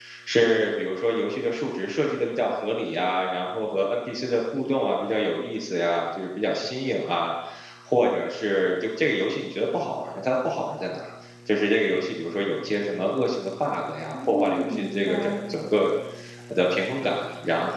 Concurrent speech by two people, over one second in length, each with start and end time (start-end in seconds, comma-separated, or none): 14.1-15.7